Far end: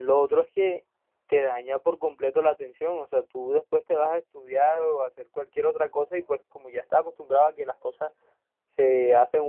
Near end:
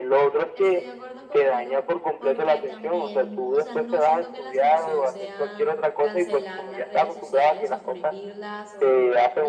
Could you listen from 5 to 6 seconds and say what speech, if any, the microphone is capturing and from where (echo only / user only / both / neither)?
both